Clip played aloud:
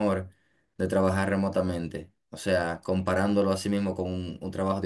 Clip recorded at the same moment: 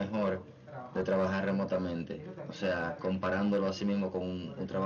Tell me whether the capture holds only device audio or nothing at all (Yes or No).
No